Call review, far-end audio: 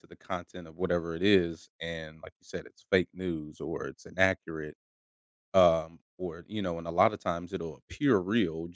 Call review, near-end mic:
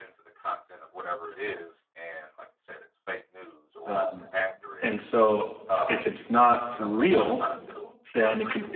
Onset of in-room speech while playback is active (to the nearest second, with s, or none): 4 s